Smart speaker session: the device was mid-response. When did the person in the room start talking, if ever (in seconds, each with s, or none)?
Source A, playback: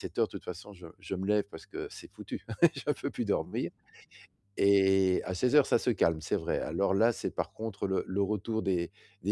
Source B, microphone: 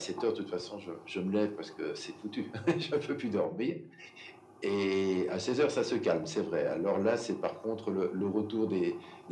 none